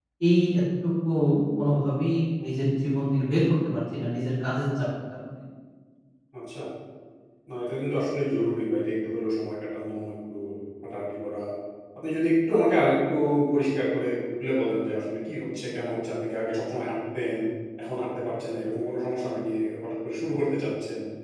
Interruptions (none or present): none